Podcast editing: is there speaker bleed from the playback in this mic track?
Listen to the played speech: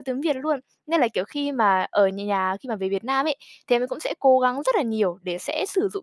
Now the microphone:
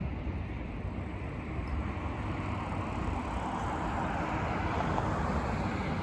No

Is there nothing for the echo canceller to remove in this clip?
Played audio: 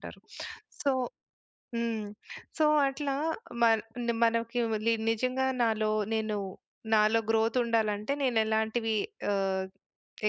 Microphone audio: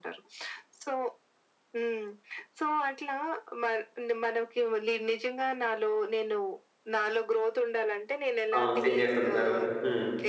No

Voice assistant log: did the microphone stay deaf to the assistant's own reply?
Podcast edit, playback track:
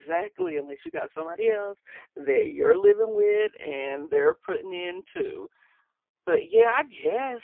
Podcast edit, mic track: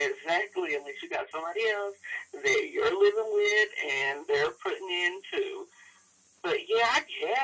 No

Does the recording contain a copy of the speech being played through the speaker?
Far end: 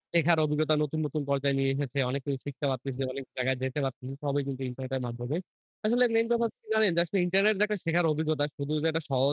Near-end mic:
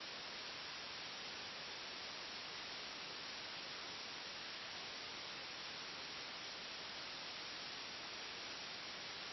No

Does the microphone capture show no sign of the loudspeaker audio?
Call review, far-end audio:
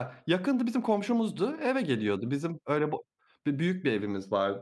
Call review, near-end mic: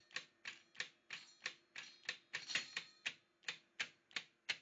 Yes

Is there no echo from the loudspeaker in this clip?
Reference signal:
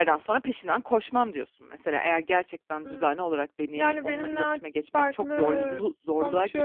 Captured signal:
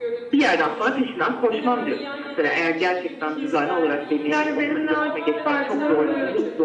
No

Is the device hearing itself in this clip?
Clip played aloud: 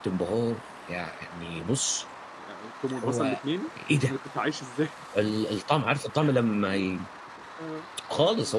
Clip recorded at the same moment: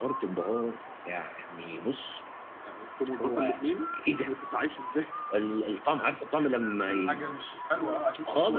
Yes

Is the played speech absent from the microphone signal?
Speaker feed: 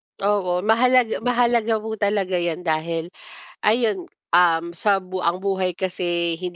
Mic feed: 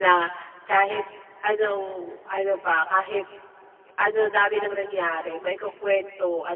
Yes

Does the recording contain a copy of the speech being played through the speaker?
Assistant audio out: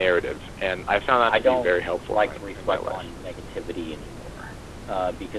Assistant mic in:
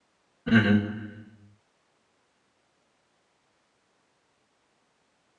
No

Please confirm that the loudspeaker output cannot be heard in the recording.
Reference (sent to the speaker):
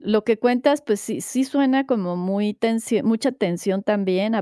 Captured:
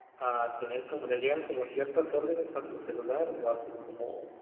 Yes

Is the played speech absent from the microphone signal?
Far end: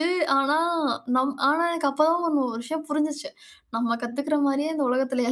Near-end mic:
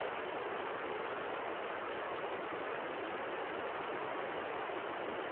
Yes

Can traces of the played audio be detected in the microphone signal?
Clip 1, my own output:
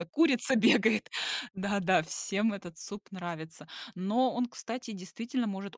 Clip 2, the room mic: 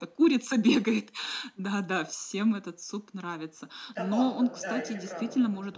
Yes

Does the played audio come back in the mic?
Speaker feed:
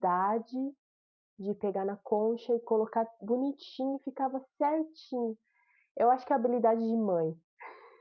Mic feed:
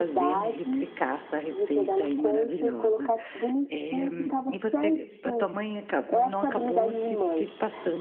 Yes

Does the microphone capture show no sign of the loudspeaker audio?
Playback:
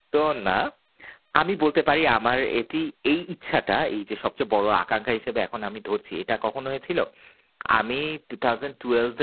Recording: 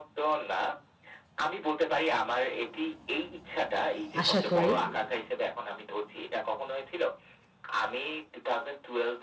No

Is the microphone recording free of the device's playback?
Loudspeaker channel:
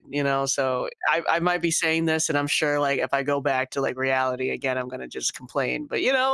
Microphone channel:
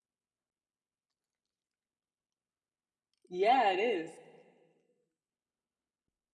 Yes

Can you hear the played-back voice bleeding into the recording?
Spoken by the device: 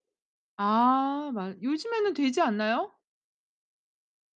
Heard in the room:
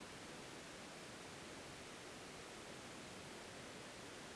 No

